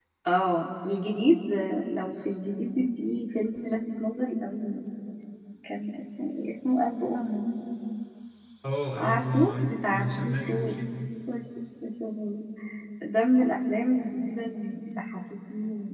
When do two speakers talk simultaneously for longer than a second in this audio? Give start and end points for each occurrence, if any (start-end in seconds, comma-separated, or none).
9.0-10.8